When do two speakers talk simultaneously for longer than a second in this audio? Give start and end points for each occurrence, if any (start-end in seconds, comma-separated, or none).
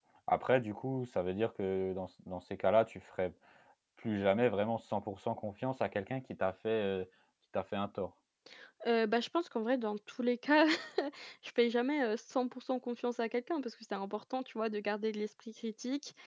none